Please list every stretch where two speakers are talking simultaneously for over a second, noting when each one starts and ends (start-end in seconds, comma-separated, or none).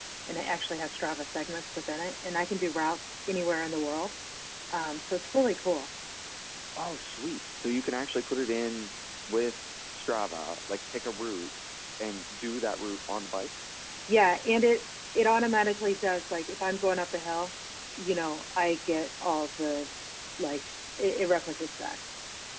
none